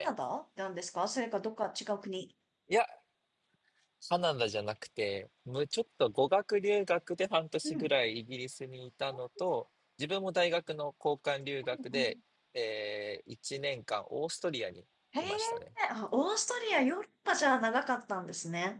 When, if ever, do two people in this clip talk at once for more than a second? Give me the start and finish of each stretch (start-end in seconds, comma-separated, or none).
none